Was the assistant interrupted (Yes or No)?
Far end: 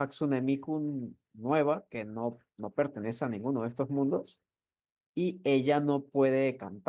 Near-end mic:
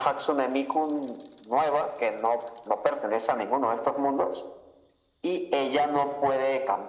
No